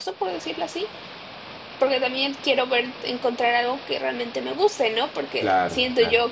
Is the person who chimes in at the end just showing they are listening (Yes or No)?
Yes